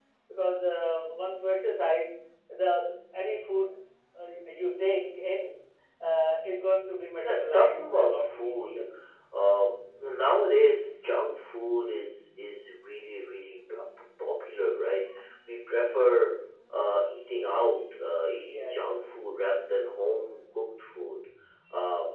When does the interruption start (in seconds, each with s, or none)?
7.2 s